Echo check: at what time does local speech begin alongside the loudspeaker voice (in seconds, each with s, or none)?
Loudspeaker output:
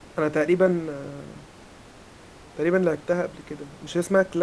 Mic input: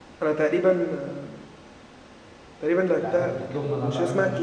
3.0 s